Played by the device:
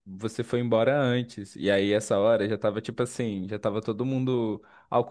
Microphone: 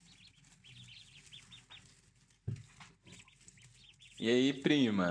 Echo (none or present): none